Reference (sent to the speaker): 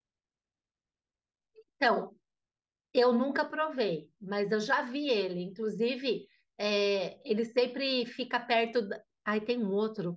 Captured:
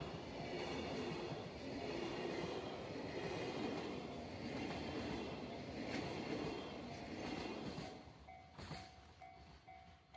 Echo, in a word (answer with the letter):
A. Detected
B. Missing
B